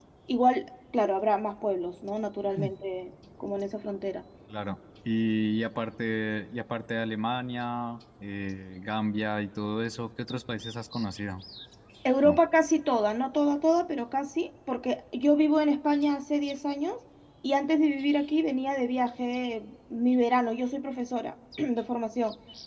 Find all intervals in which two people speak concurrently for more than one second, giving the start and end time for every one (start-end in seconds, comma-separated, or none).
none